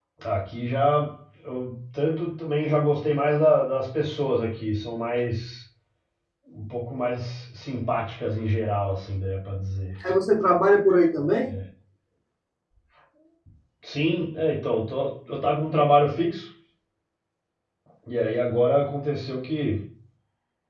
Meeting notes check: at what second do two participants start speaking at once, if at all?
none

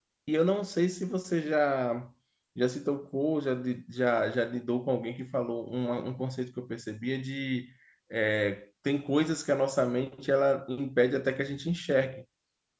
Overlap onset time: none

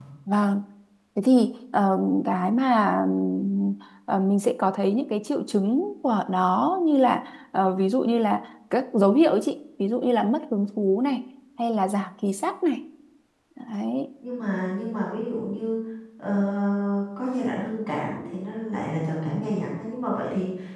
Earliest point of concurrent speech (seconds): none

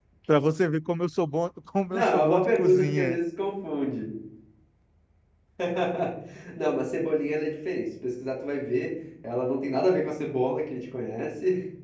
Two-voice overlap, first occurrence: 1.9 s

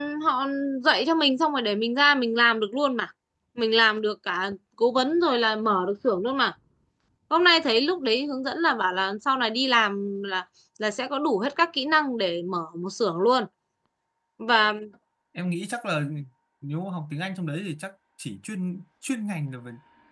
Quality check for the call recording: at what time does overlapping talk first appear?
none

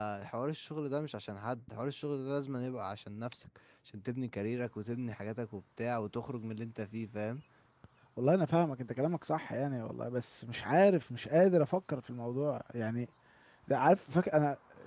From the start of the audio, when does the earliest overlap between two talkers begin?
none

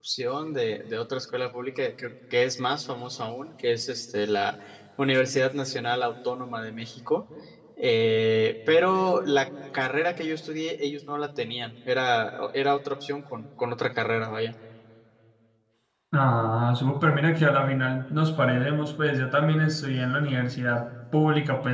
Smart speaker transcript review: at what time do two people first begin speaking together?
none

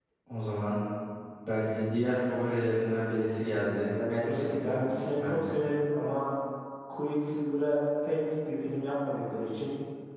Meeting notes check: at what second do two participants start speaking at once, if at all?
3.6 s

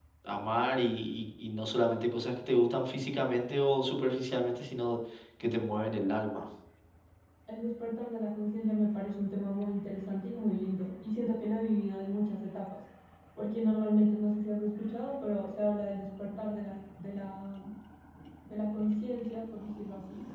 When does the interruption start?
none

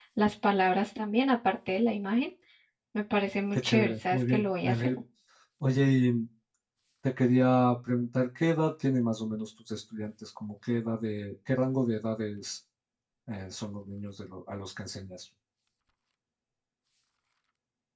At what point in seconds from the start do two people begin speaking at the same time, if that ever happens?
3.5 s

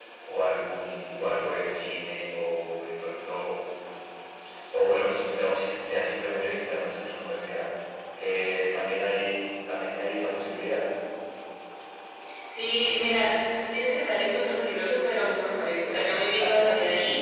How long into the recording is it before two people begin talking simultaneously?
none

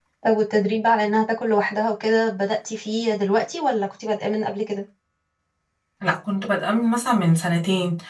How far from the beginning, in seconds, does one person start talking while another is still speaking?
none

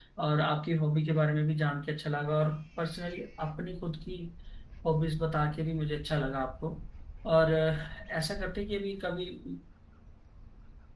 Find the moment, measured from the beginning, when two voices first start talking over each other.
none

